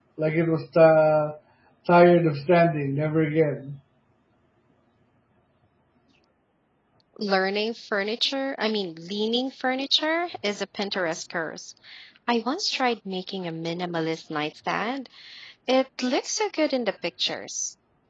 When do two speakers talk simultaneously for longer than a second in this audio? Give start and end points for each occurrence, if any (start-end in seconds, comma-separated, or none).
none